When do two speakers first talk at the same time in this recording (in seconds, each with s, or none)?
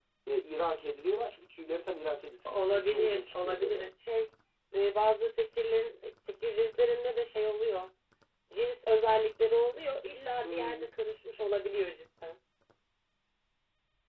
2.5 s